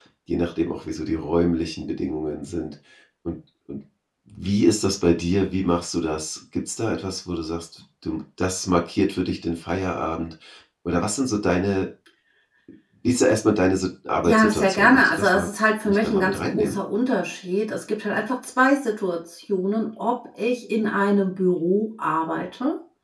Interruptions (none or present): present